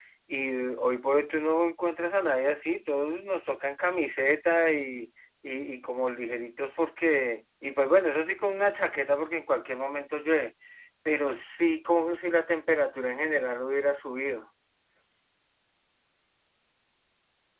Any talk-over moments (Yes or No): No